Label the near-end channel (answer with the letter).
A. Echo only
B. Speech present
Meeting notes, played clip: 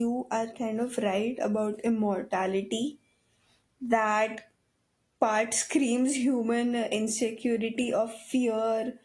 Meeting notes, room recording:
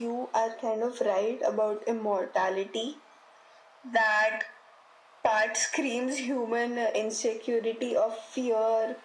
A